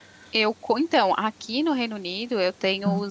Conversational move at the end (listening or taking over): listening